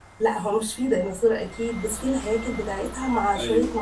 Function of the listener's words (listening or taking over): listening